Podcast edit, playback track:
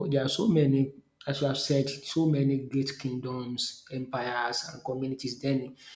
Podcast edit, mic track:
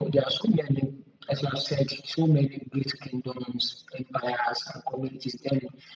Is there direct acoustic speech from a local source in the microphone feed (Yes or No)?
No